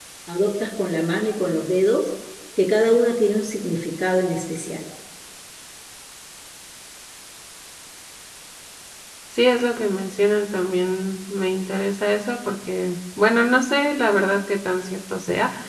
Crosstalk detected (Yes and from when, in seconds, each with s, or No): No